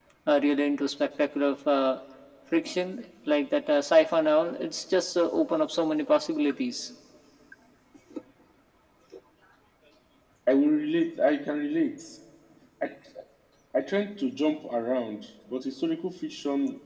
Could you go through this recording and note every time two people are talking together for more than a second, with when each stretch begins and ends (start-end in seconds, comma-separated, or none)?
none